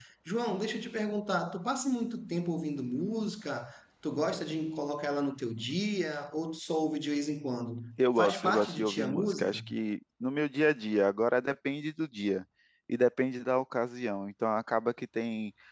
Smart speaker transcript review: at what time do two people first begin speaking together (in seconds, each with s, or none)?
8.2 s